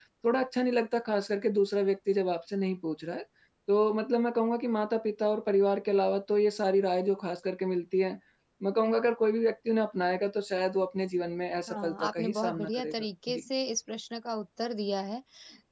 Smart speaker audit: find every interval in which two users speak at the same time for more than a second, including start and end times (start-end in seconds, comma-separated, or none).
11.7-13.4